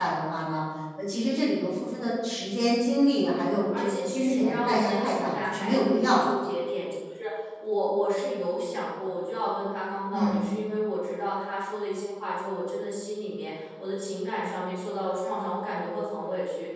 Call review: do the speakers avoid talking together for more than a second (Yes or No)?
No